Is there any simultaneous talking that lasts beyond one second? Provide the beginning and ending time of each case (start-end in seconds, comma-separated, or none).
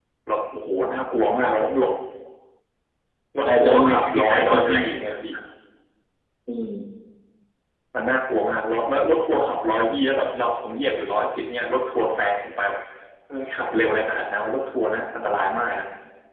3.5-4.8